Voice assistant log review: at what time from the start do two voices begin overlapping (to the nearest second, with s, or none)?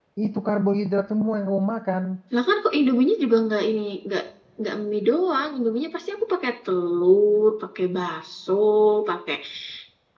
none